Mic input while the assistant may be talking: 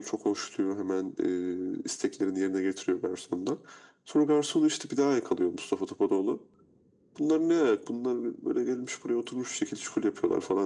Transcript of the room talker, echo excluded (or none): none